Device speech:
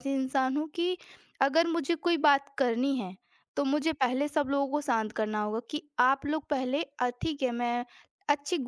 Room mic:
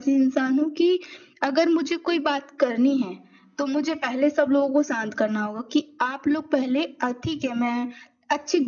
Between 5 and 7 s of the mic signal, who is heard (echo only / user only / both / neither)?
echo only